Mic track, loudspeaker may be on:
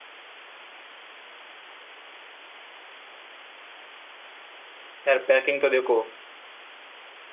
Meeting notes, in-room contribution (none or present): present